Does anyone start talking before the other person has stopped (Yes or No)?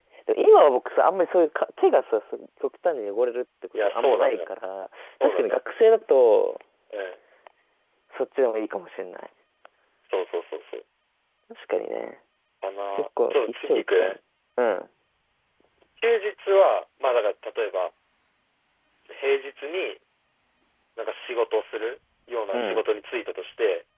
Yes